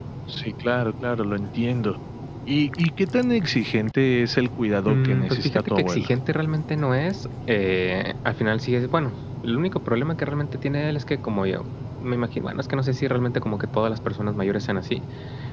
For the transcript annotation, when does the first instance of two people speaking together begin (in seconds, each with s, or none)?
4.9 s